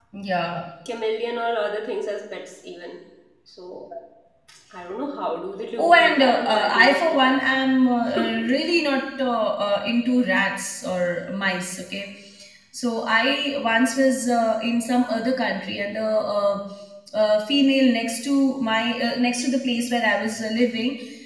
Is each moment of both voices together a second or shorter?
No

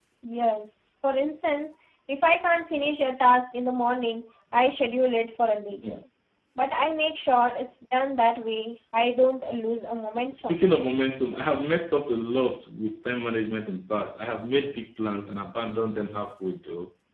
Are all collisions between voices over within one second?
Yes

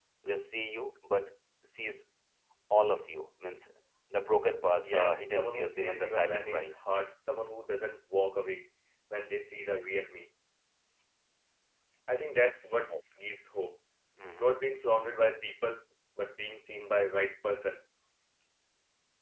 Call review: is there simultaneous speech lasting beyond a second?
Yes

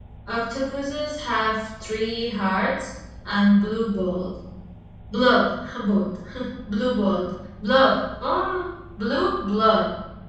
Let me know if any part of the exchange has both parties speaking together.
No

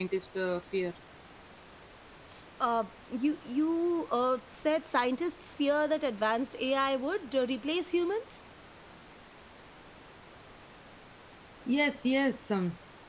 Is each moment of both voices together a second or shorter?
Yes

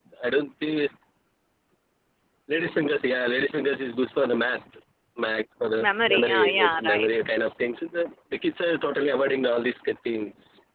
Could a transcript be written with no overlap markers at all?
No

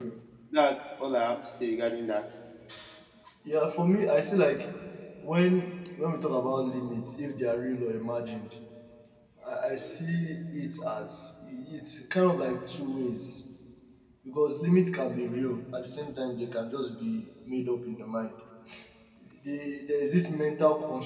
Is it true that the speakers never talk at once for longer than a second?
Yes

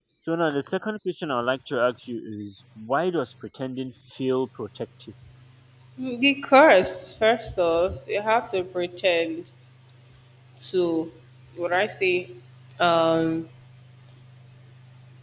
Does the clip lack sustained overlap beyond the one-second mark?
Yes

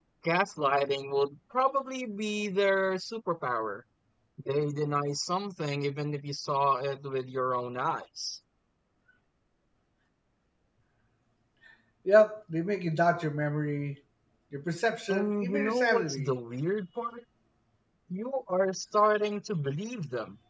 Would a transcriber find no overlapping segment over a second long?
No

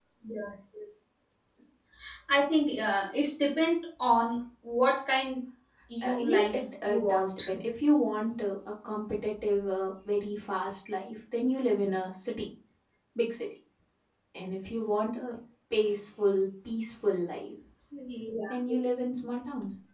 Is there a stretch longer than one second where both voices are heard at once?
Yes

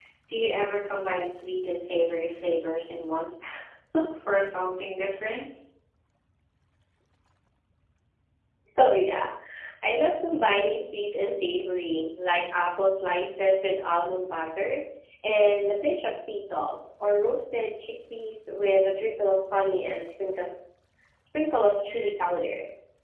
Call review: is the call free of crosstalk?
Yes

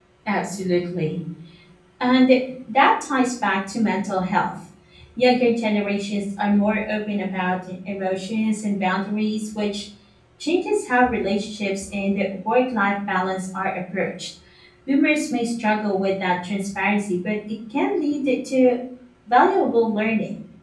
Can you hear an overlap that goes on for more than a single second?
No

